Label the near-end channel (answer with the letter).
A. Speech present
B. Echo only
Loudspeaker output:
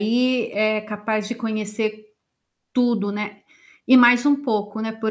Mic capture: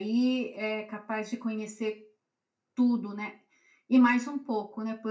B